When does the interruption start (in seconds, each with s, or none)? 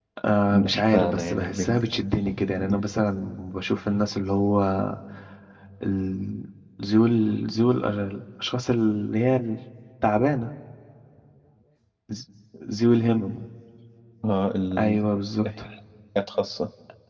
0.5 s